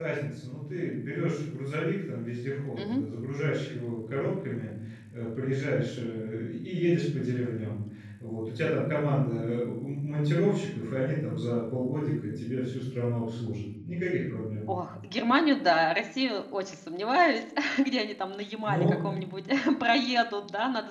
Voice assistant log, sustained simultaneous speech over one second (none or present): none